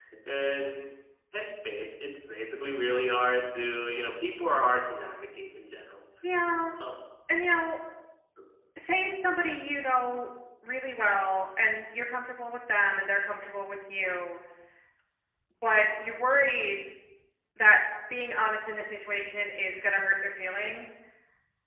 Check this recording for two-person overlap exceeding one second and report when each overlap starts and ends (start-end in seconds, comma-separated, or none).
none